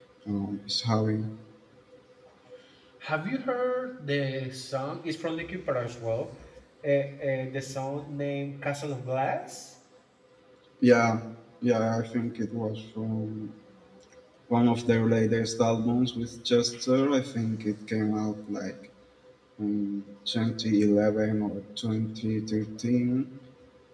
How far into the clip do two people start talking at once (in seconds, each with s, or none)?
none